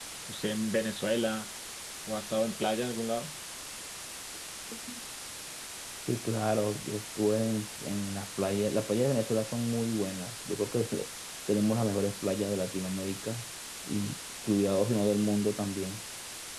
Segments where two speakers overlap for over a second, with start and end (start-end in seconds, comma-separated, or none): none